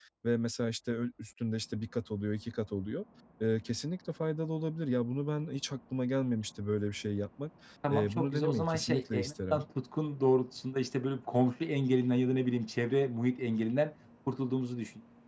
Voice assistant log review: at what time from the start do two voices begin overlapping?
7.9 s

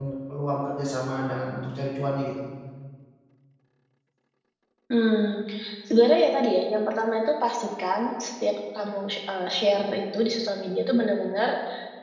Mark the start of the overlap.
none

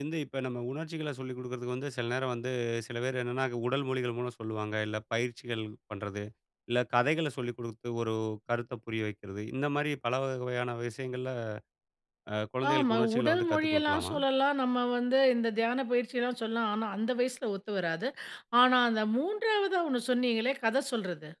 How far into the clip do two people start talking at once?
12.7 s

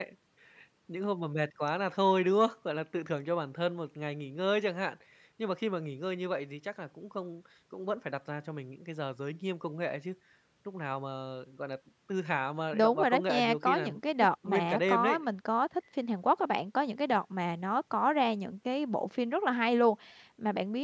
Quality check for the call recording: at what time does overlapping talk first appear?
12.7 s

